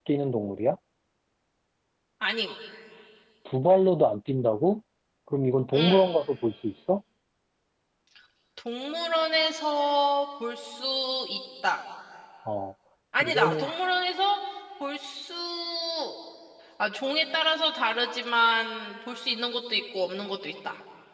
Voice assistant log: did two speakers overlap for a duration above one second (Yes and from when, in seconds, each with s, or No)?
No